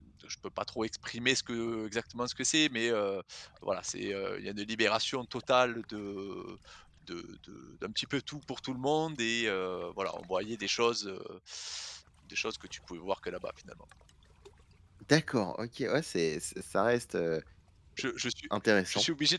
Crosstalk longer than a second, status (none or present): none